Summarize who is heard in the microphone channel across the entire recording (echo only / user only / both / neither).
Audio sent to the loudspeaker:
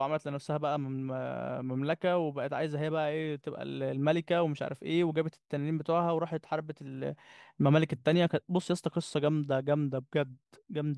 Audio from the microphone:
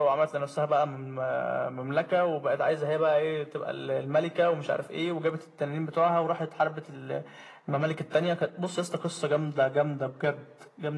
echo only